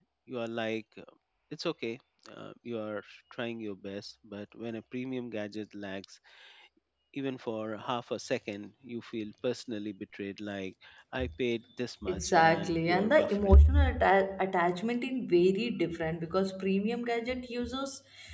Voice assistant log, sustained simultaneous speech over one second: present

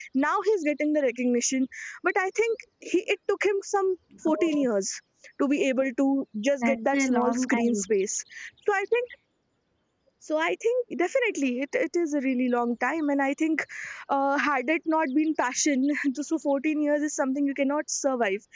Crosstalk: present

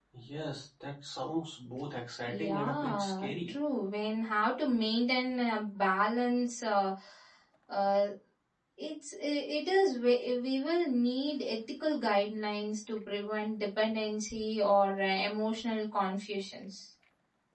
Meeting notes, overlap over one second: present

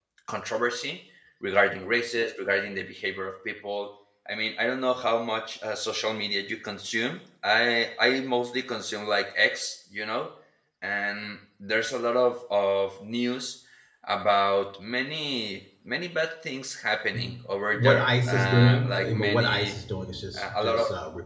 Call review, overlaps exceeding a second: present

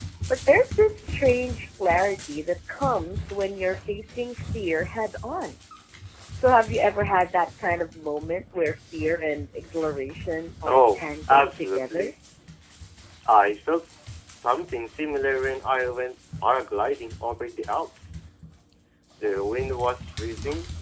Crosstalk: present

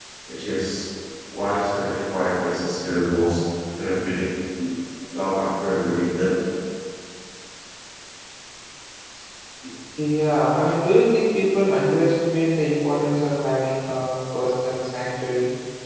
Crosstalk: none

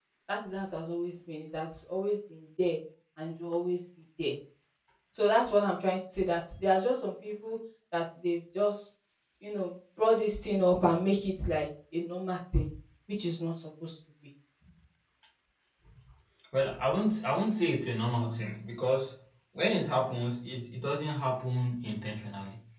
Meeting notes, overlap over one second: none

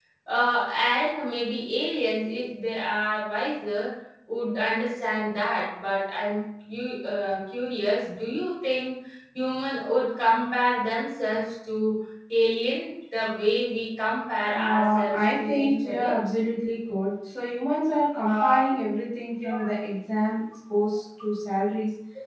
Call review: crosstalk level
present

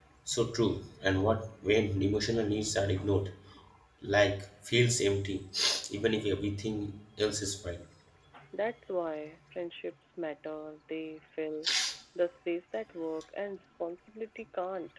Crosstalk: none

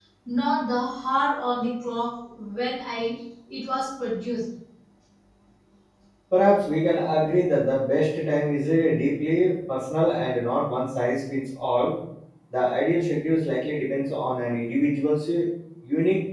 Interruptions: none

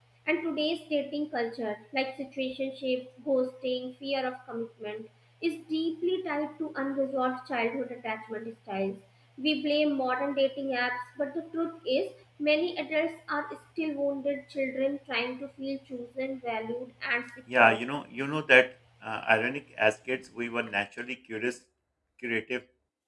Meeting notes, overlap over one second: none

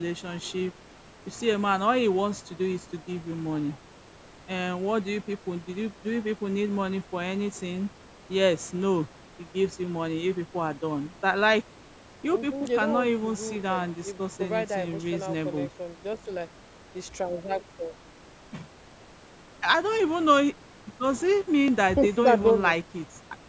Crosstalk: present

